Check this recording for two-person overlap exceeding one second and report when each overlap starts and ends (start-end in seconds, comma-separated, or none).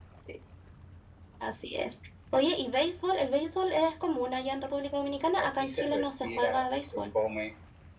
5.4-7.0